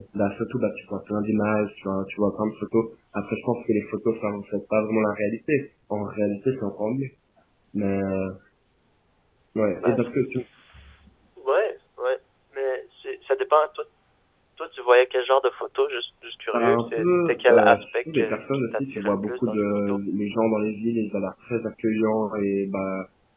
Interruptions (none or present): present